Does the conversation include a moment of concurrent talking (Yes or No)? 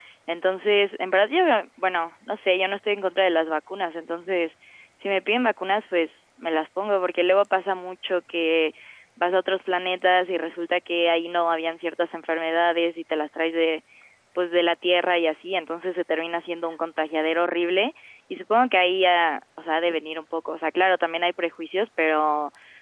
No